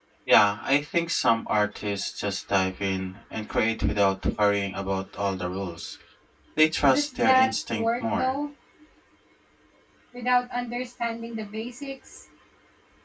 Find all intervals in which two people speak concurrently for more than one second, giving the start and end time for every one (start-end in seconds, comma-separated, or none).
6.9-8.3